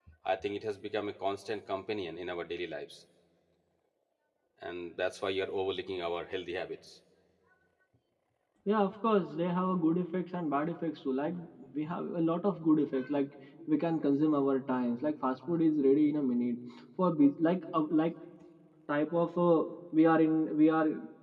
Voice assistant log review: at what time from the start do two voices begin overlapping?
none

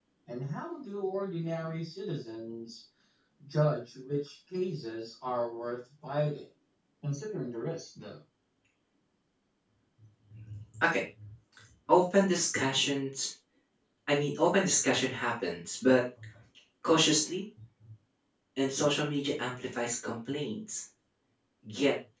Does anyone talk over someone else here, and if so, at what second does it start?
none

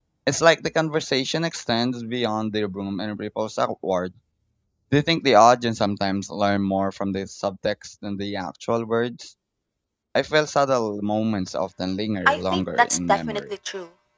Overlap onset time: 12 s

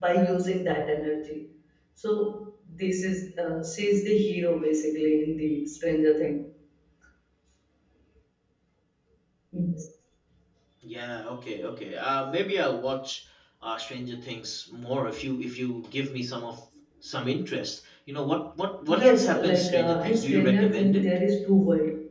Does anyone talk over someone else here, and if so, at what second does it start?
19 s

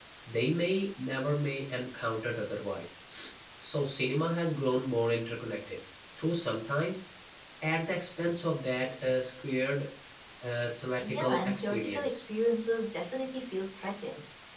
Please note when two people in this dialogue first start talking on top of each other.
11 s

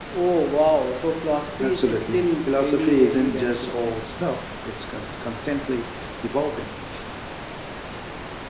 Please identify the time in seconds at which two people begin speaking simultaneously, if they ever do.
2 s

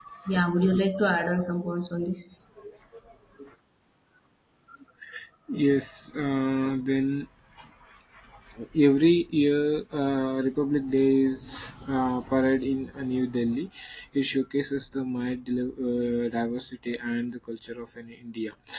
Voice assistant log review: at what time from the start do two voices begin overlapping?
none

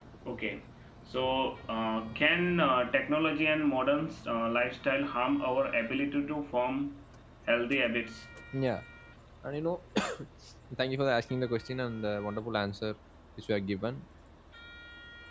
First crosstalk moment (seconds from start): none

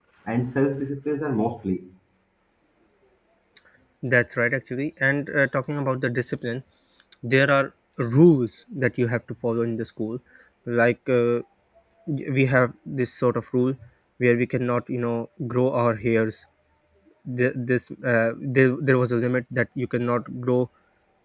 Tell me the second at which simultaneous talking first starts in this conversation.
none

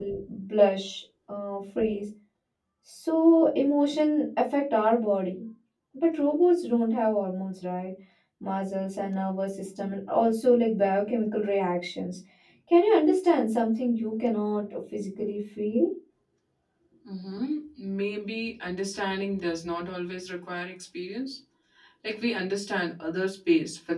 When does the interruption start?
none

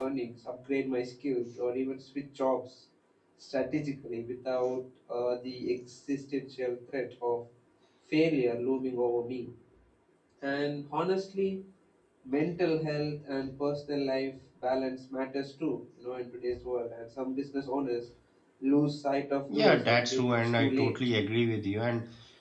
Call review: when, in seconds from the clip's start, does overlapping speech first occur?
19 s

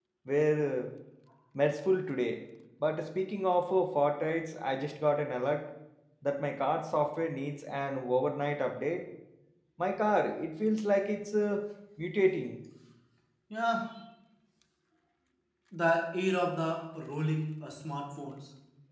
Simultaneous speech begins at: none

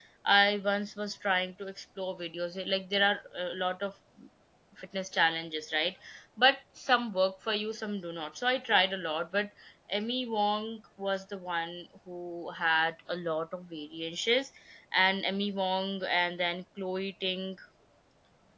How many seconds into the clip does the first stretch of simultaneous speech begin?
none

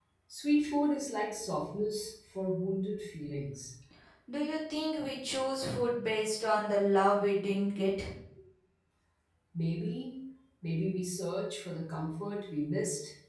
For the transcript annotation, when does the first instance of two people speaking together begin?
none

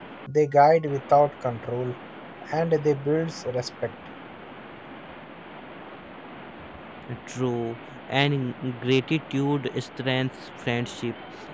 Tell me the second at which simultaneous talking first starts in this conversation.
none

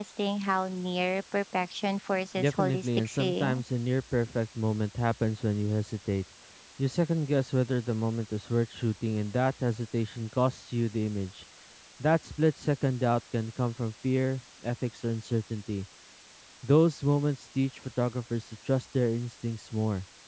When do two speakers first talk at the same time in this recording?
2 s

